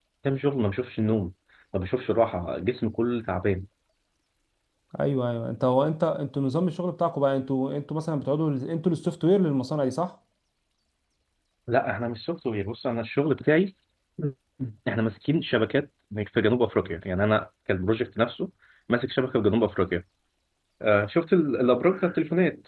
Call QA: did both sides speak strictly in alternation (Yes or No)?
Yes